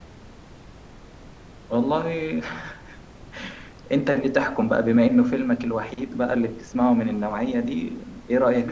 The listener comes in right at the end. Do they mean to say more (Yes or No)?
Yes